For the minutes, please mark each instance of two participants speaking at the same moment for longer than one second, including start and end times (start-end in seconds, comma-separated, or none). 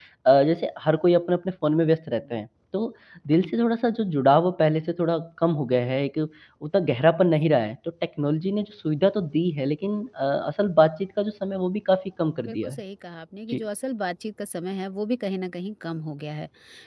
none